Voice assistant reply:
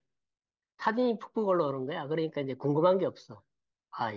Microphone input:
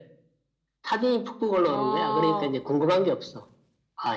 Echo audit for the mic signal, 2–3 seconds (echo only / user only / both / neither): both